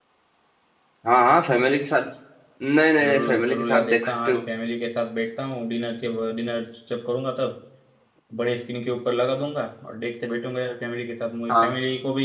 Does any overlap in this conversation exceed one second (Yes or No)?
Yes